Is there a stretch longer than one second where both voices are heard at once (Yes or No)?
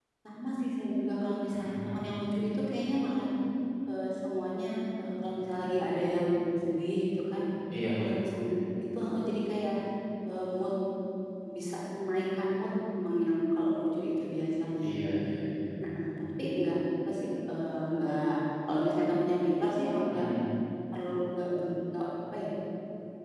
No